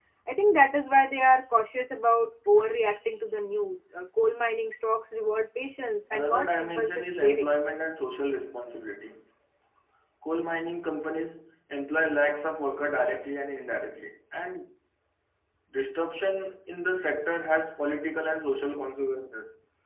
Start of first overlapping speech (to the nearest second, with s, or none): 6 s